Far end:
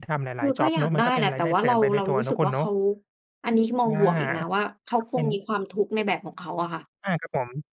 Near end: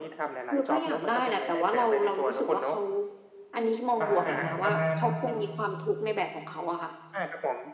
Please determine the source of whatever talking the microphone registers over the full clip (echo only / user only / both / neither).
both